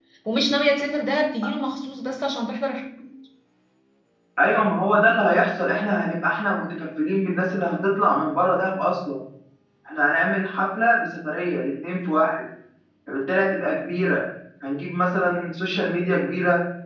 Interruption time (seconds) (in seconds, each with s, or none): none